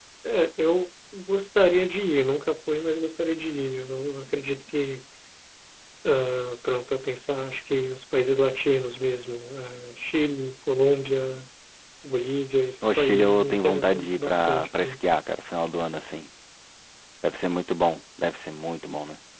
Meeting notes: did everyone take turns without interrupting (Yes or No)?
No